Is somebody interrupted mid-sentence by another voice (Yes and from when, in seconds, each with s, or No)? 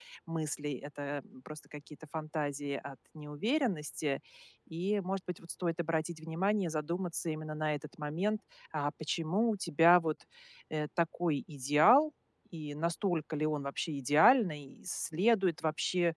No